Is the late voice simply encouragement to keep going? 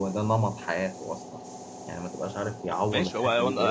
No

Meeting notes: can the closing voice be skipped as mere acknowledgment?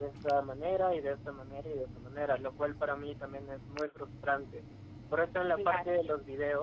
Yes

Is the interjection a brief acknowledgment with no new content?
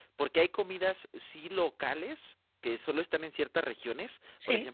Yes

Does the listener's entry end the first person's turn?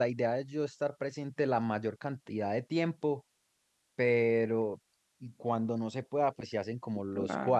No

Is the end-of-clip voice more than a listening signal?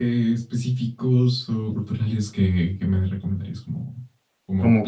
No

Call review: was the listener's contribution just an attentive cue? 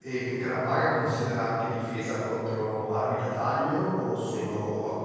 No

